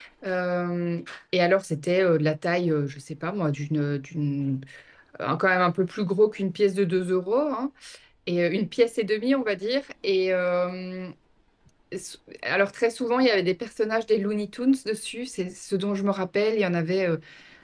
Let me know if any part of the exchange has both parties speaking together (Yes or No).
No